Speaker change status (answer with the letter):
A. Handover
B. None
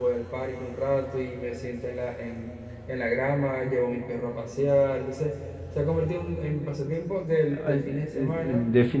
A